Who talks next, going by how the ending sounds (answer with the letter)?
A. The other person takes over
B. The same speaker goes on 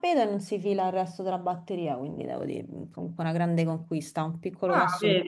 A